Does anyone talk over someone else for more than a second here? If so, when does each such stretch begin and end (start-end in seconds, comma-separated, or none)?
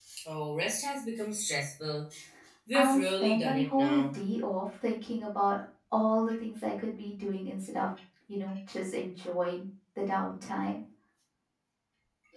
2.7-4.0